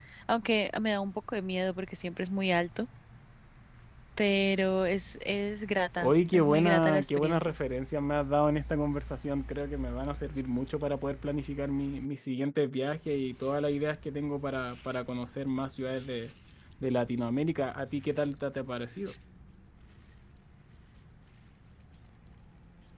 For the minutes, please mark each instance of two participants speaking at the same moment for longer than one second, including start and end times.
6.0-7.5

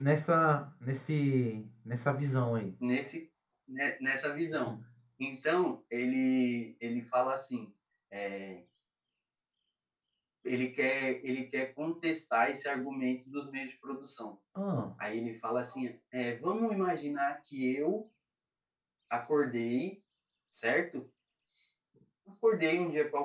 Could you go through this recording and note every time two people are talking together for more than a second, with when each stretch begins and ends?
none

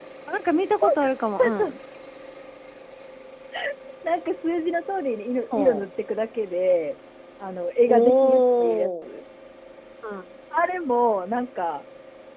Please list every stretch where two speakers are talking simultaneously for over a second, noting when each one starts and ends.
7.9-9.1

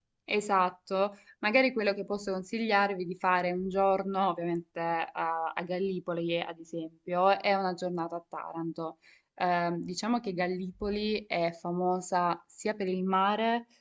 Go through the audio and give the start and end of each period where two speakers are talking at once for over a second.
none

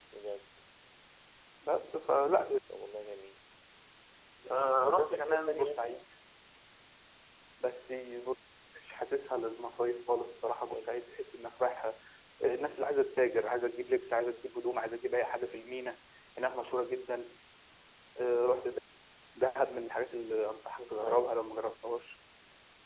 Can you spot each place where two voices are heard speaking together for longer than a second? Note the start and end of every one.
4.8-6.0

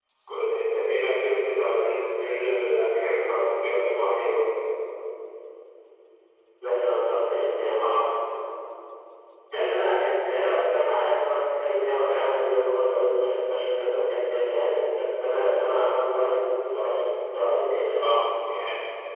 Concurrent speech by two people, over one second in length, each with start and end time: none

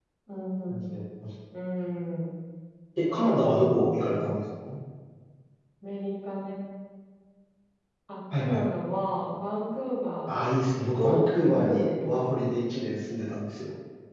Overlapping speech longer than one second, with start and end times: 3.0-4.4, 11.0-12.2

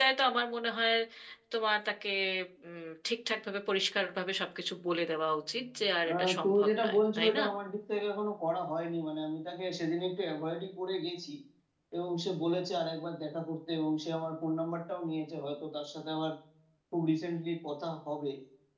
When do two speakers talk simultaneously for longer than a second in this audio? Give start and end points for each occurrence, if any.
6.1-7.4

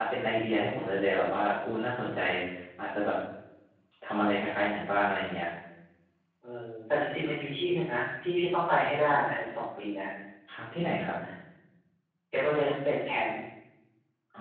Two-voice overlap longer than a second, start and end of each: none

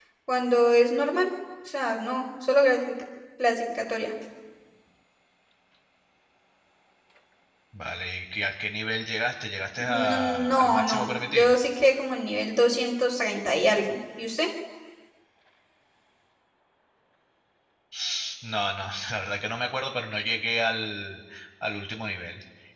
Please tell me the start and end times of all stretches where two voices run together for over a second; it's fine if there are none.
9.8-11.6

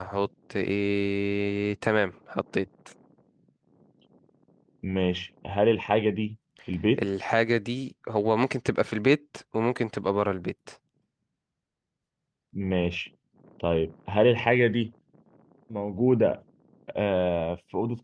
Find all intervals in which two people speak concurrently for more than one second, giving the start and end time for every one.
none

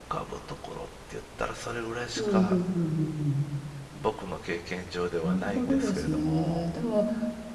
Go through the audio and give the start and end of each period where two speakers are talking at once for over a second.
5.2-6.7

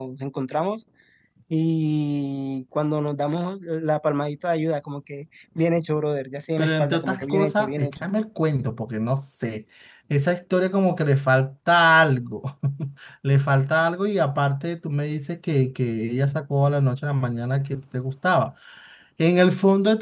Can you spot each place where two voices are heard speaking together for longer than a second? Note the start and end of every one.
6.6-7.9

